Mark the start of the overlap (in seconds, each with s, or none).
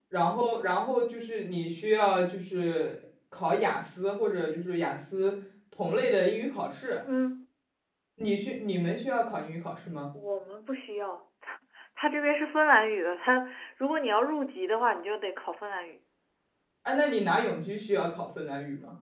none